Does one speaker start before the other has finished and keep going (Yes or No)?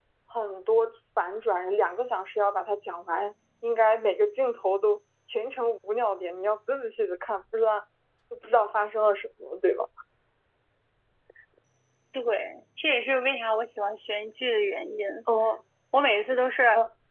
No